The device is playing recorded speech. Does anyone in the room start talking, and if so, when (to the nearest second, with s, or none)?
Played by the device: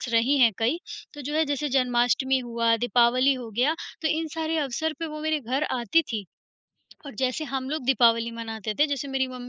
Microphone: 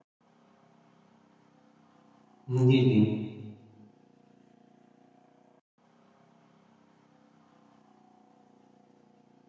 2 s